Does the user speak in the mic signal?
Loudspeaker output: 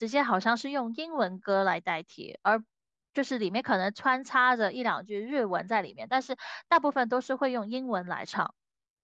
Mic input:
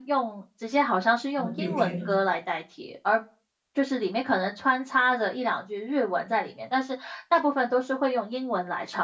Yes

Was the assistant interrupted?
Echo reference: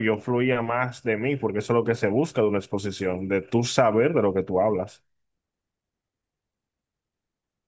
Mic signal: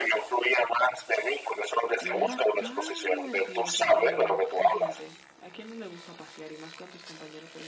Yes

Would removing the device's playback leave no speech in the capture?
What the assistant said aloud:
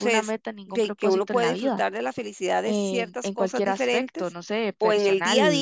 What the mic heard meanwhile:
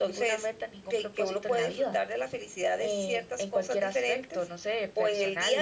Yes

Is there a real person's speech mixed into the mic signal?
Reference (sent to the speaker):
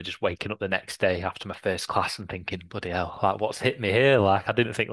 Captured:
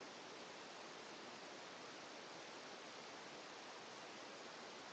No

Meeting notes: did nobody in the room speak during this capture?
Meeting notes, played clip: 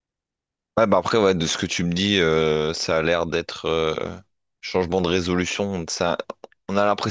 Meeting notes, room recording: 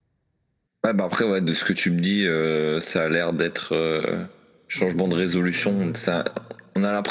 No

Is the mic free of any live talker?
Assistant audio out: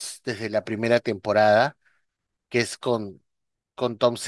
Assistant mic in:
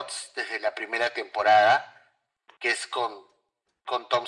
Yes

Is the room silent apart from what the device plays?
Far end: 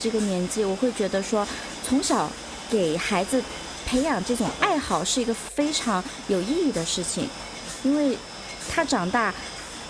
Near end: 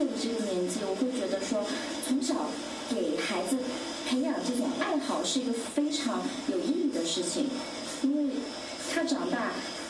Yes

